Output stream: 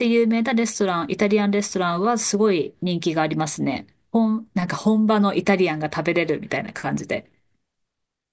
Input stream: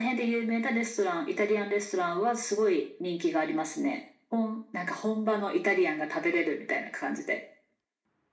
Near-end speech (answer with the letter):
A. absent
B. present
A